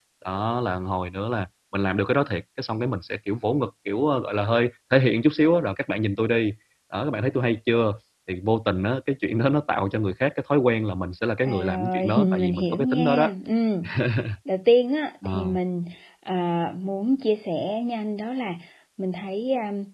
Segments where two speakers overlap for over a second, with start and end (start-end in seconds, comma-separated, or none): 11.4-13.3